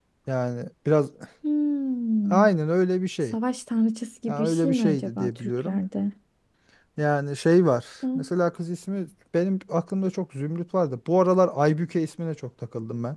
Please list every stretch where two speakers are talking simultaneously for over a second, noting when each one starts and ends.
4.3-5.8

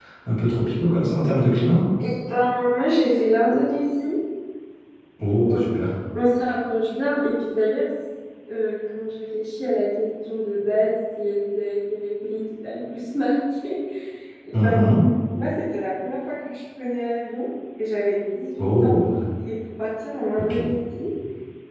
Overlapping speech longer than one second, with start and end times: none

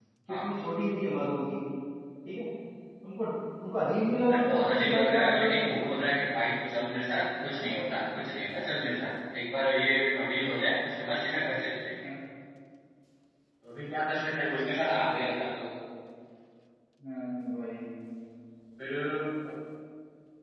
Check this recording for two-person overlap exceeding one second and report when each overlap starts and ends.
4.3-5.9

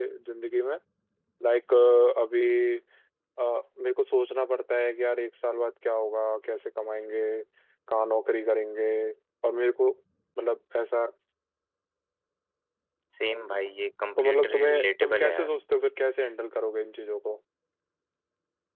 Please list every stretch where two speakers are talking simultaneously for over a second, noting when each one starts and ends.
14.2-15.5

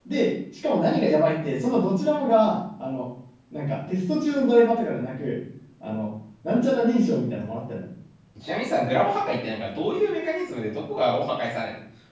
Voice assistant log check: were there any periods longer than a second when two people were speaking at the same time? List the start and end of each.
none

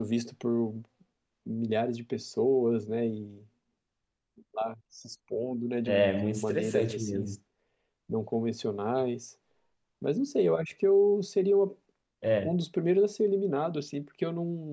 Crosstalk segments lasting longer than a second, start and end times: 5.9-7.2

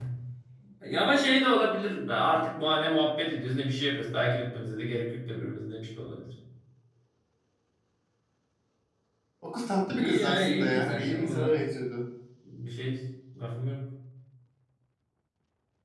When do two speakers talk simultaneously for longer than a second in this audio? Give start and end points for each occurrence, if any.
10.0-11.5

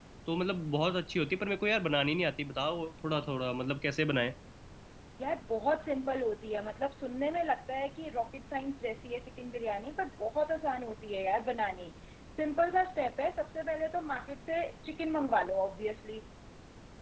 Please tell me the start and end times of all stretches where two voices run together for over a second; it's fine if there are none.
none

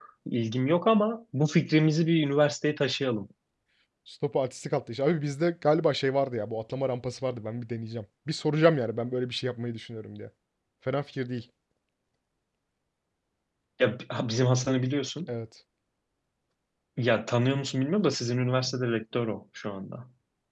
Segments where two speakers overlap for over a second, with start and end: none

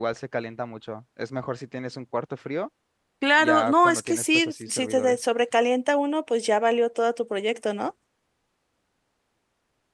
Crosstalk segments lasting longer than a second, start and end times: 3.4-5.2

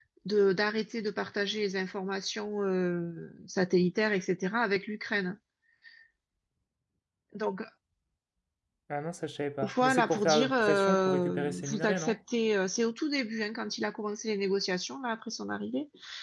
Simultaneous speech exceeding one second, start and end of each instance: 9.8-12.2

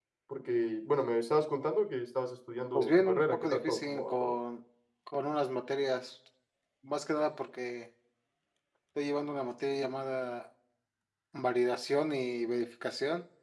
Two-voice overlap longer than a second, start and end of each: 2.7-4.3

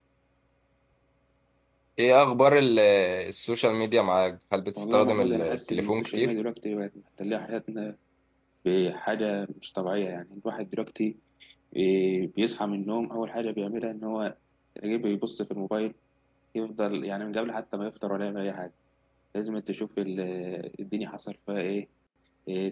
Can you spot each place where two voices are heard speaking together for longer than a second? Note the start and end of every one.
4.8-6.3

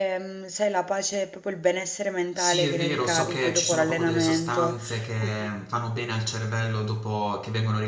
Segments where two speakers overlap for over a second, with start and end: 2.4-4.8

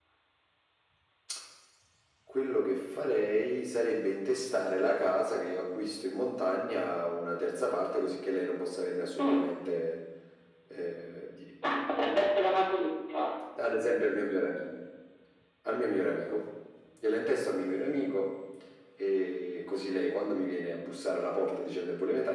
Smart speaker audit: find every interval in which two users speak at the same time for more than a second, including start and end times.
none

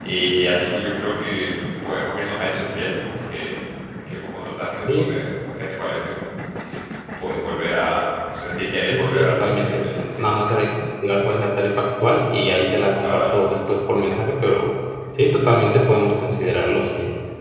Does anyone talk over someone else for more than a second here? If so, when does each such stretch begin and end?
8.9-10.3

